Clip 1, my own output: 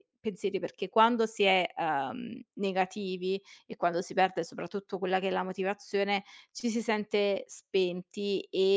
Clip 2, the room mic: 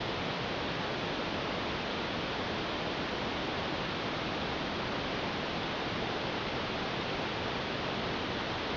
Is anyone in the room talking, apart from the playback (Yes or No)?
No